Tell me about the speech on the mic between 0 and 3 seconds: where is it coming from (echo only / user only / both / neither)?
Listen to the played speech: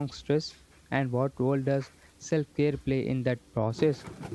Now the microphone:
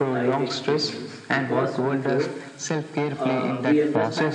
both